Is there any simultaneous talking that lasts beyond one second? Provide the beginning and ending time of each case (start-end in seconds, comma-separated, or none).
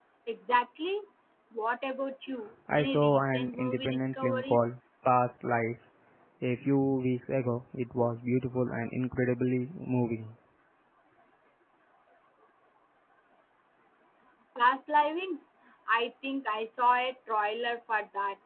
2.8-4.7